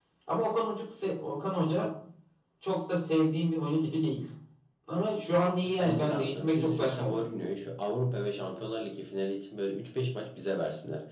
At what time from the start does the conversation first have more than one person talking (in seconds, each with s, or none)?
5.6 s